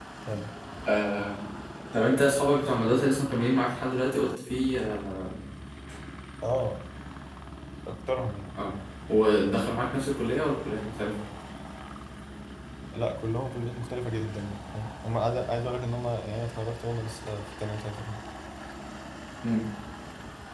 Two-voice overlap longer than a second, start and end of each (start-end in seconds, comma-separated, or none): none